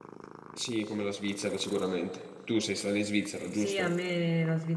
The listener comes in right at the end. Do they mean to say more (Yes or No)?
Yes